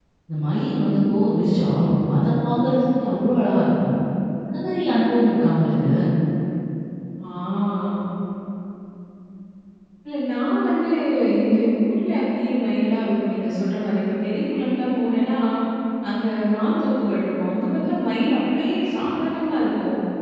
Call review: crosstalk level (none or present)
none